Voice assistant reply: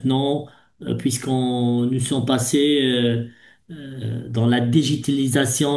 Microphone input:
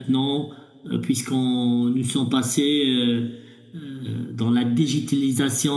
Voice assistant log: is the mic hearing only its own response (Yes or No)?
Yes